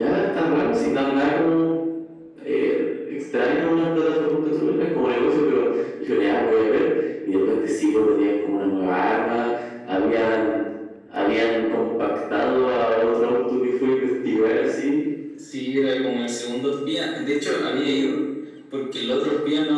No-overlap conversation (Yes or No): Yes